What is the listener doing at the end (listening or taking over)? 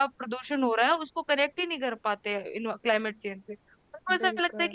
listening